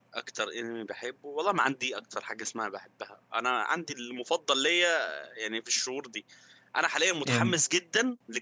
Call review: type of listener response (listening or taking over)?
listening